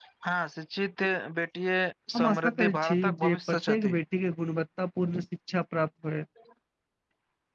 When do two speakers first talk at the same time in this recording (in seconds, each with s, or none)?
2.2 s